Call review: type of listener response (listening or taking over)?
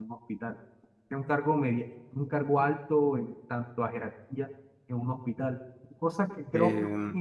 listening